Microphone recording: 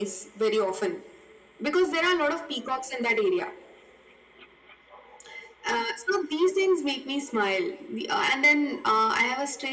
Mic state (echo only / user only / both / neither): echo only